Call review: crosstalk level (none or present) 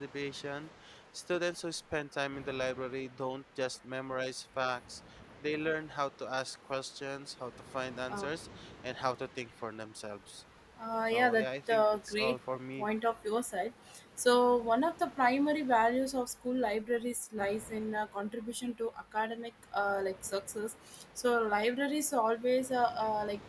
present